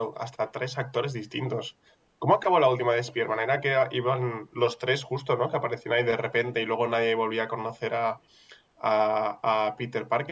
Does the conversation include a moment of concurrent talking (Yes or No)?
No